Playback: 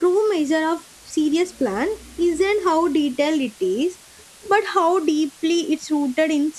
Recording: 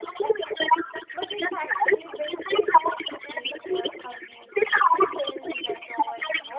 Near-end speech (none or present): present